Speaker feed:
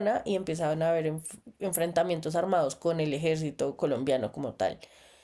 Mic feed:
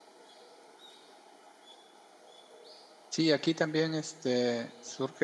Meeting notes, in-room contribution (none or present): present